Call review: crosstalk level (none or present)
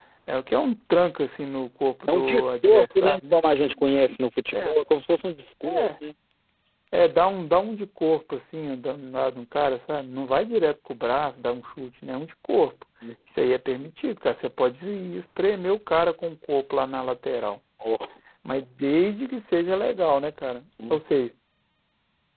present